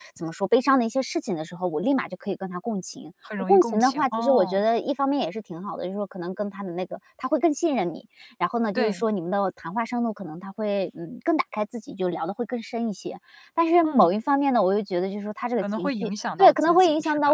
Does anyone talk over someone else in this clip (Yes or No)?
Yes